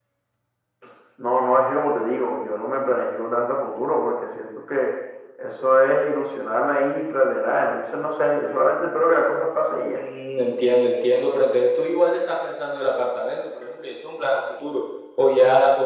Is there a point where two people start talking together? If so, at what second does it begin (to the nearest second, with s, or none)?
none